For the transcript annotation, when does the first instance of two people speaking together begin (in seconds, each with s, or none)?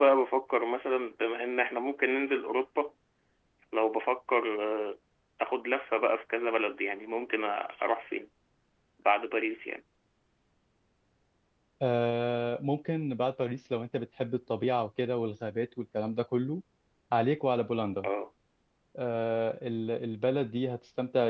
none